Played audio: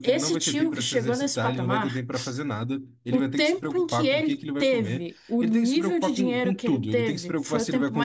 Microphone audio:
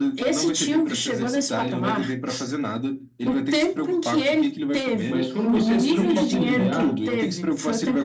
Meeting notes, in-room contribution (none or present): present